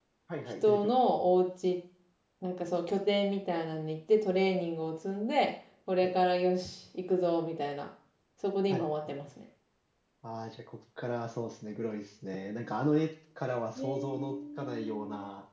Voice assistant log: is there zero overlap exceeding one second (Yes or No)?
No